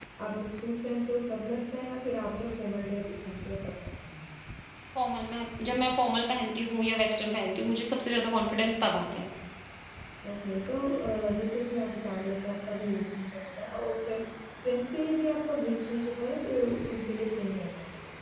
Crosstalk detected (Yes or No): No